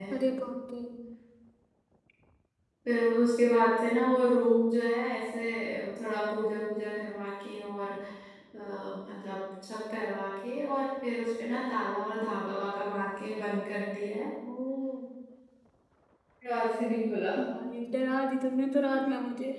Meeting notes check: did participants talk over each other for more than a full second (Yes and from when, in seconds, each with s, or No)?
No